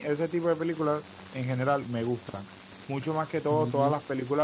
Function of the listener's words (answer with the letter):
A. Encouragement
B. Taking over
A